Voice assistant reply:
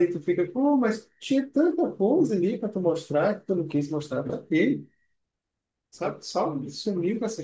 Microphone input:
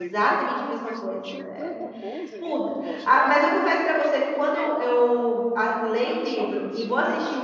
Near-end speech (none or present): present